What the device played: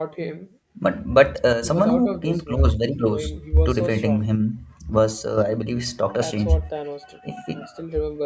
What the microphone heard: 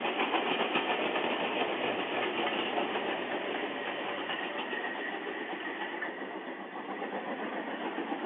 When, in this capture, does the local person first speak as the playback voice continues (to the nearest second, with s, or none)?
none